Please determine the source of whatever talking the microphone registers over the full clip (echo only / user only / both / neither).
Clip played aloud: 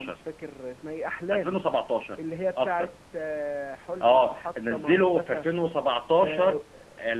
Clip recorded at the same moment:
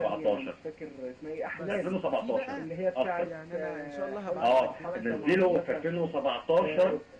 both